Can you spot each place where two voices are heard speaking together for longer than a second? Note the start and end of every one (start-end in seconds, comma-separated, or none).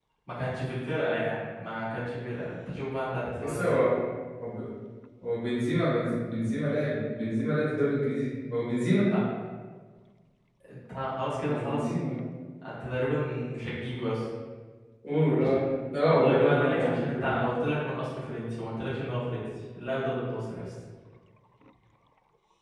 16.1-17.4